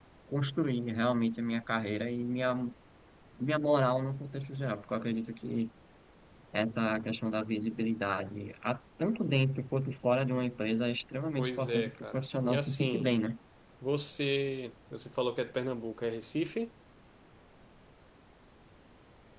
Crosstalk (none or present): present